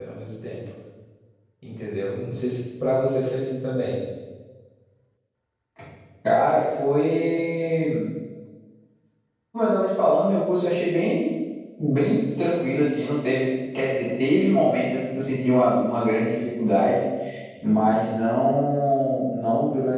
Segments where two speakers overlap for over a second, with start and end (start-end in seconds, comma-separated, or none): none